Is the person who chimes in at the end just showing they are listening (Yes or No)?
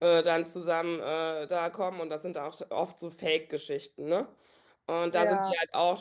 Yes